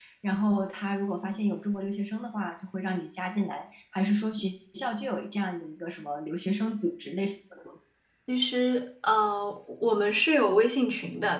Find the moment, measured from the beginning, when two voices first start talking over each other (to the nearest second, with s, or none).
none